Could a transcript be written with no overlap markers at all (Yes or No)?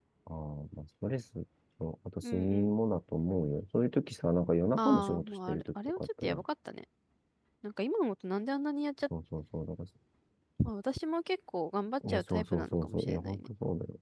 No